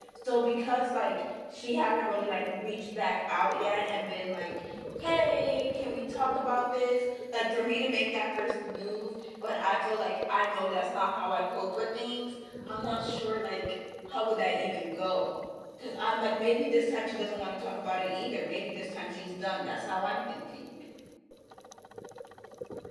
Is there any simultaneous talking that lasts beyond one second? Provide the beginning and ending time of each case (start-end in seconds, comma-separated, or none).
none